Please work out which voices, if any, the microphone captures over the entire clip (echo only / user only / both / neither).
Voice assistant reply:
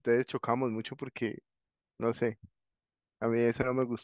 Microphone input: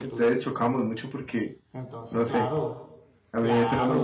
both